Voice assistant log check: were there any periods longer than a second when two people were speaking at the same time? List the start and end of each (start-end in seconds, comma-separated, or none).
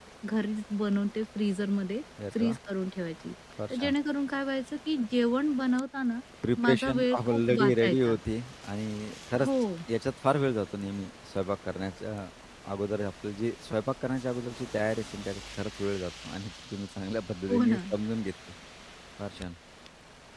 6.6-8.1